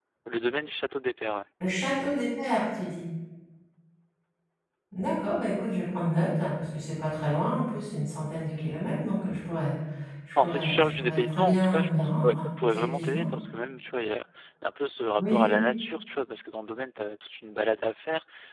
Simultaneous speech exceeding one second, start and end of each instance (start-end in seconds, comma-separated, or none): 10.4-13.3